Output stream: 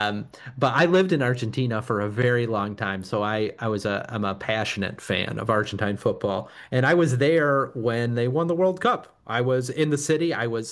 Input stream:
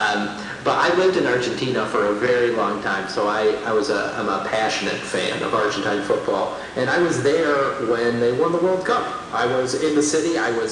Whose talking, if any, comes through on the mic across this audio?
echo only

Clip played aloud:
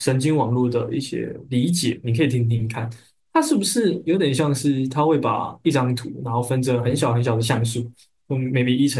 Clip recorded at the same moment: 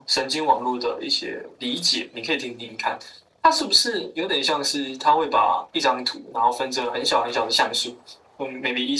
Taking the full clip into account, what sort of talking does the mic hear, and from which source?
echo only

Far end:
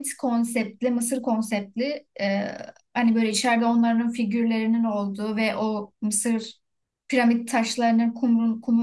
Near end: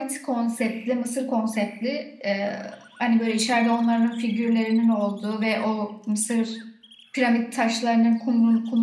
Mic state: echo only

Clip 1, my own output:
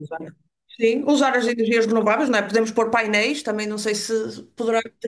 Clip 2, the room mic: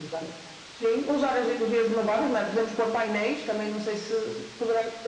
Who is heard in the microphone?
echo only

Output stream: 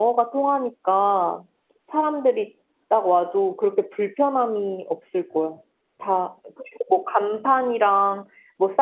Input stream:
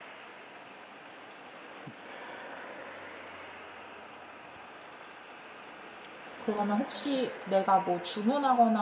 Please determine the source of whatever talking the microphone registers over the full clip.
user only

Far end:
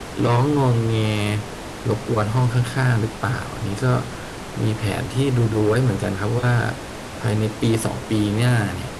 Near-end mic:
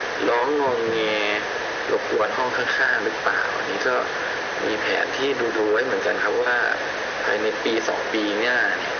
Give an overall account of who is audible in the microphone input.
both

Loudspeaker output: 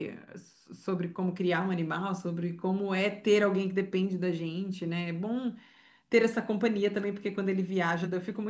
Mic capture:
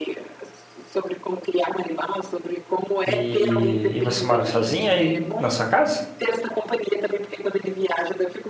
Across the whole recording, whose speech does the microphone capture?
both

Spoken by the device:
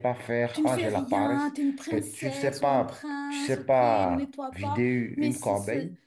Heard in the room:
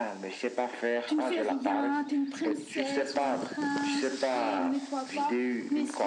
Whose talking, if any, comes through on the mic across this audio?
echo only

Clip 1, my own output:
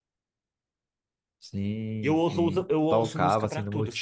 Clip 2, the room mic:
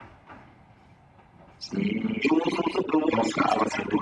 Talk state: echo only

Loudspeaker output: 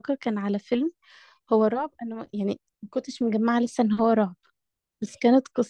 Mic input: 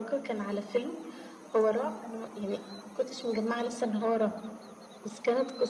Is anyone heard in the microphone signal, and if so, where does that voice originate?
echo only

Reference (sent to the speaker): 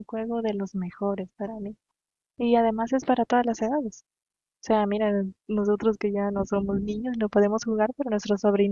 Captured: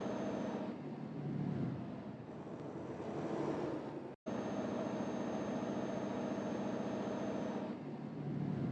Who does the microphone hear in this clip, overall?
neither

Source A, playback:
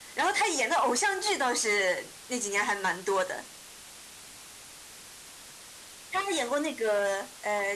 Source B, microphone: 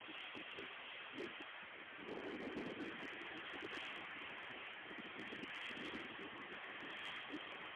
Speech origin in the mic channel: neither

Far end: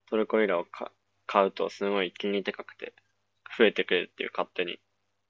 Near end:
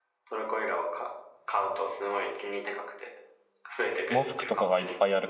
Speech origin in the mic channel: both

